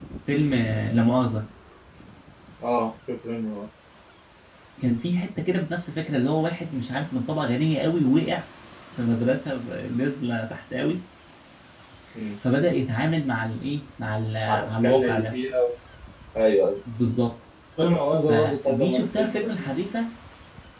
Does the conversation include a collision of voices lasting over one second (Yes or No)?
Yes